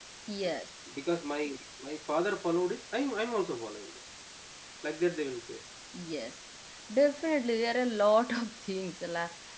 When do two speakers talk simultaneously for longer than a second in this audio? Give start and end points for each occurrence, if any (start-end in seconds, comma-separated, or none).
none